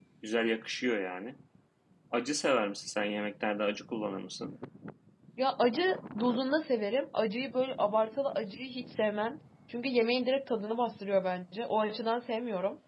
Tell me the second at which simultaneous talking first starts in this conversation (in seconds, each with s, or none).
none